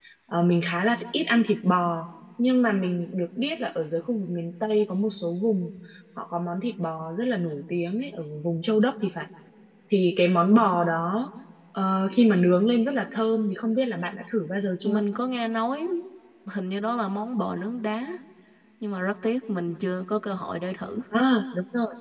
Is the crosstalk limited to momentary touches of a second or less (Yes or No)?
Yes